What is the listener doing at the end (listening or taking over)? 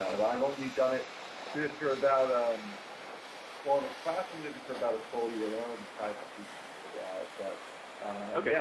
listening